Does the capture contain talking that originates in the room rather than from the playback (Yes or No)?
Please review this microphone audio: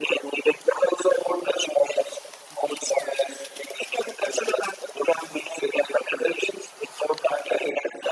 No